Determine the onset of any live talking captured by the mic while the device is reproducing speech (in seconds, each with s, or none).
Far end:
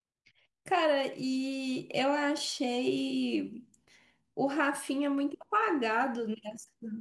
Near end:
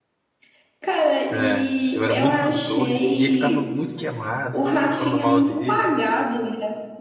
1.3 s